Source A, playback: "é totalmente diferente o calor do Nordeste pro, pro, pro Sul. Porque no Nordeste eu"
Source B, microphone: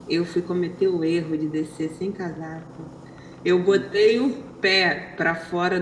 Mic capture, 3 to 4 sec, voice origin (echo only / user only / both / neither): user only